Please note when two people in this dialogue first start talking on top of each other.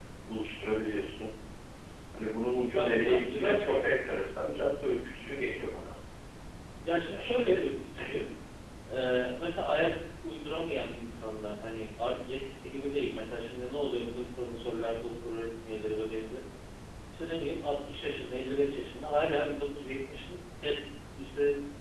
2.7 s

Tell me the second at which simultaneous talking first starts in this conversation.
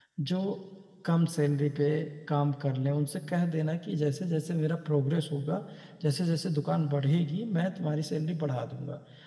none

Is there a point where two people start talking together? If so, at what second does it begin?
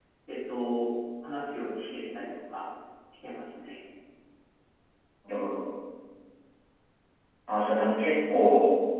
none

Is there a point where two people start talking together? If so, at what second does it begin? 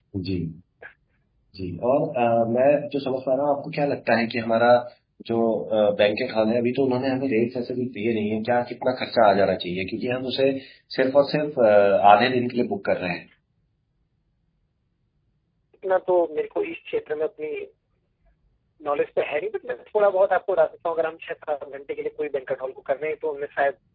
none

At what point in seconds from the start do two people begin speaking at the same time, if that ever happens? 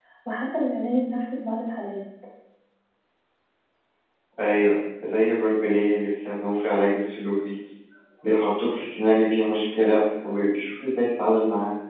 none

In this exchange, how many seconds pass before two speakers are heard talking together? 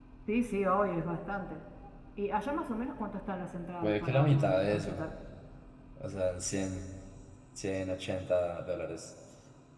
3.8 s

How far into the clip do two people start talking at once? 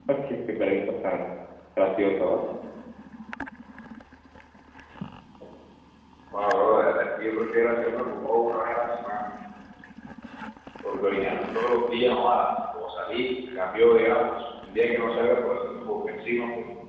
none

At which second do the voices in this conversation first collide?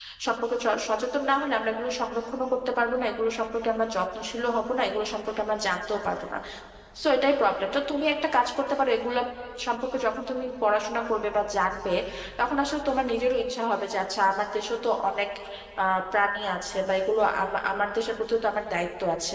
none

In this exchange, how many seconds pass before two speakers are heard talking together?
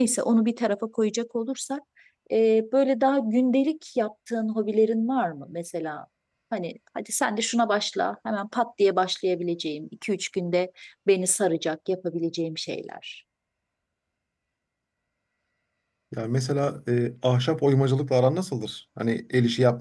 none

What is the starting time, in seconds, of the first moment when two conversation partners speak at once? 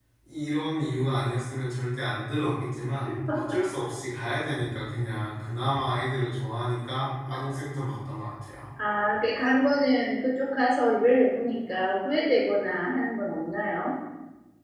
none

